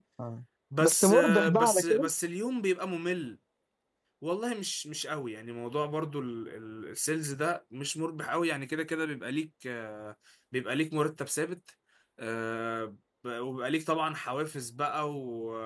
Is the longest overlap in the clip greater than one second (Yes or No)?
Yes